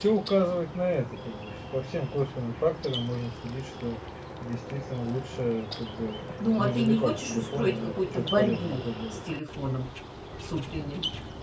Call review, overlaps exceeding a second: present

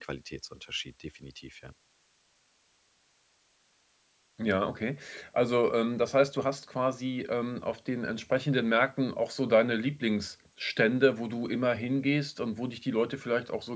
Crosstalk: none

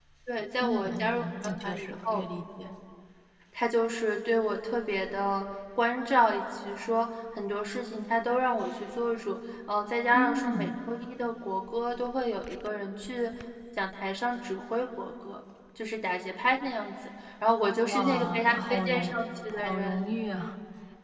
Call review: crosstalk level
present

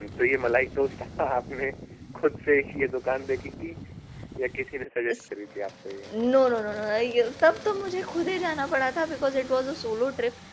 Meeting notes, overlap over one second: none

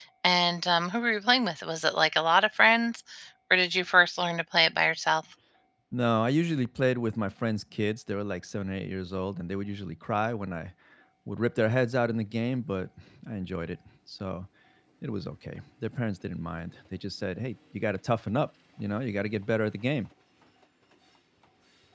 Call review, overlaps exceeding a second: none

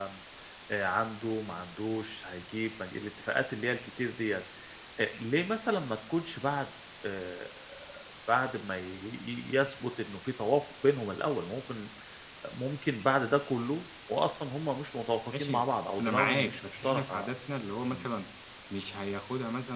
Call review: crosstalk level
present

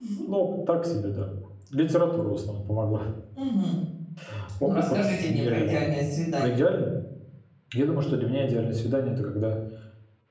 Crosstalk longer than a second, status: present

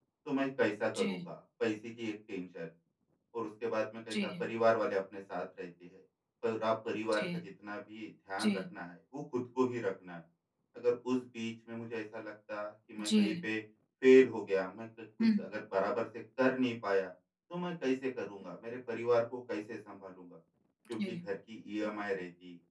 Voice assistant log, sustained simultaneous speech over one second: none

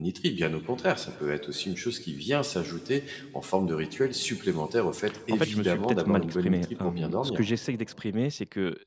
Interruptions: present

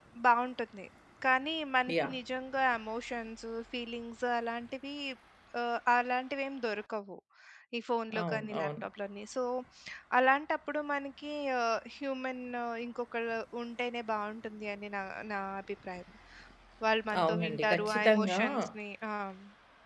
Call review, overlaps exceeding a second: present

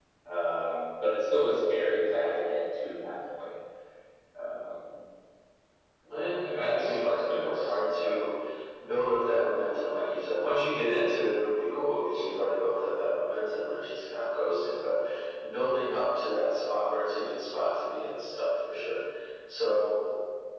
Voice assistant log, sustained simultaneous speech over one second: present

